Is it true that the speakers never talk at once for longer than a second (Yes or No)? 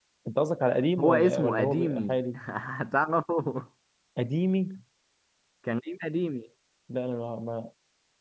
No